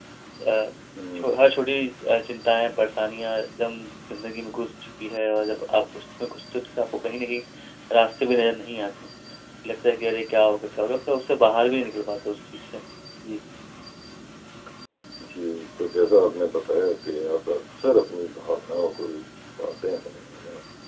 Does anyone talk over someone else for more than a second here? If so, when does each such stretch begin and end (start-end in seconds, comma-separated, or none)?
none